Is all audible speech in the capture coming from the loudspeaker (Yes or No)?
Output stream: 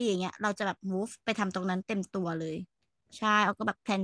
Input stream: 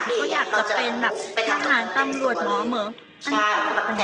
No